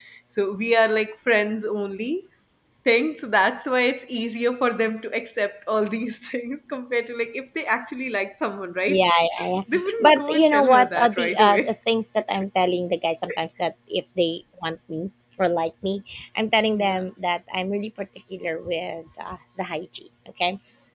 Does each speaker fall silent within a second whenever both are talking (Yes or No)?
No